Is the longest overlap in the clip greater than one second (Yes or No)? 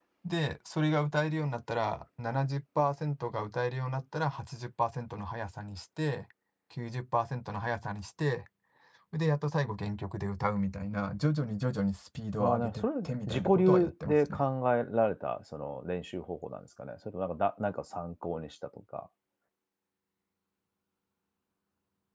Yes